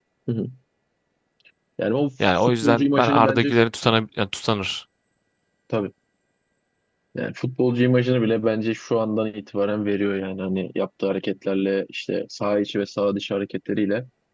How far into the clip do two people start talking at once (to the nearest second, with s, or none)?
2 s